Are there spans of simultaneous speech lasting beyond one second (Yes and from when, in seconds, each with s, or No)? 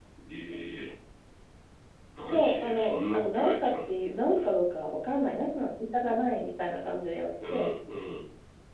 Yes, from 2.2 s